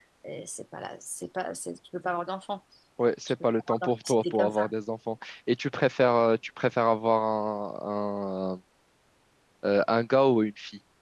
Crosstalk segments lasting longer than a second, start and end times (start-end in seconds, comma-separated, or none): 3.3-4.7